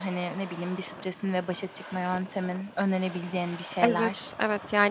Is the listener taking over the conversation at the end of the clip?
Yes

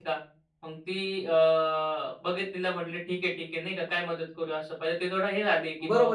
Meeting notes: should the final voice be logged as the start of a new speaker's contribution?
Yes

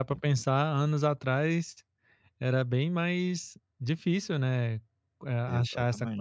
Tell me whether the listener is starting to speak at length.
No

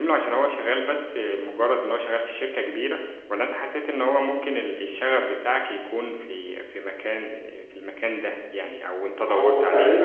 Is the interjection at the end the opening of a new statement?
Yes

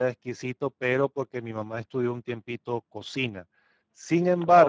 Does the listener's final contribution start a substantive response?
No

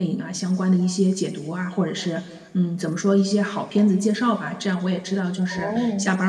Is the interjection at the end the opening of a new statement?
No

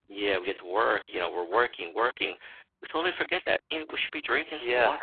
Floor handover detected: Yes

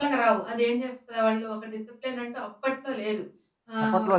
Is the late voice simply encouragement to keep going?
Yes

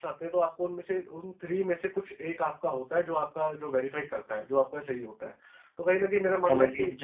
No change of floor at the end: No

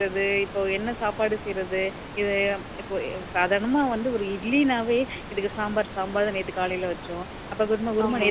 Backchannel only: Yes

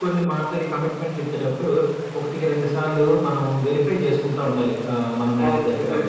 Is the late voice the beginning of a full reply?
Yes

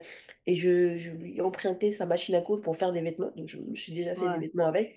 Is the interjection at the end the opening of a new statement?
No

